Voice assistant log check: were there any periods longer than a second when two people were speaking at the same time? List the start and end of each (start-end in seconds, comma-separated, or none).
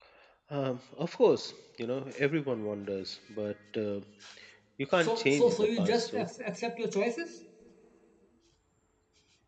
5.0-6.2